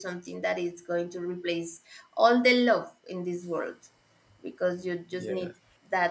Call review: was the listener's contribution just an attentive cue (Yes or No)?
Yes